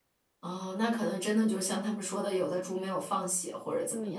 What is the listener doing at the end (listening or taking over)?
taking over